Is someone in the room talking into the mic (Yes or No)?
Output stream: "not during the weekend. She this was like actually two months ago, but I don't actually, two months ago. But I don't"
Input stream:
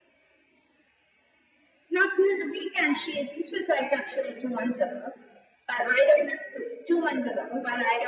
No